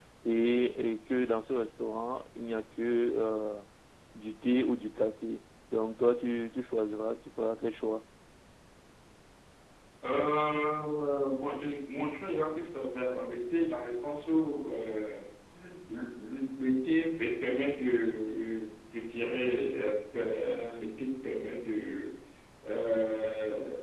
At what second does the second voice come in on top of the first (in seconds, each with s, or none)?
none